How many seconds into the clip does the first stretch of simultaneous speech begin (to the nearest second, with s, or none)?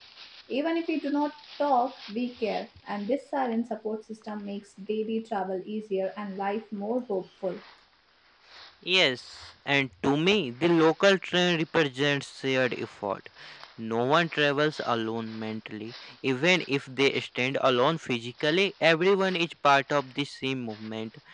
none